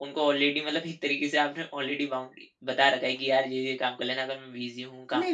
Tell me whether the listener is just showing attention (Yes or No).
No